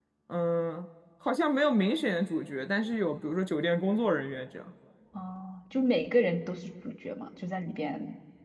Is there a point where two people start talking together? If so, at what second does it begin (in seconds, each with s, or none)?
none